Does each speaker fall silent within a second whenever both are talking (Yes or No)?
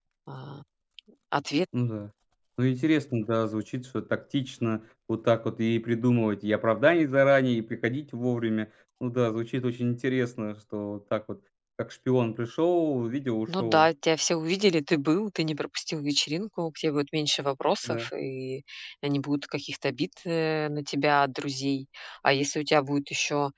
Yes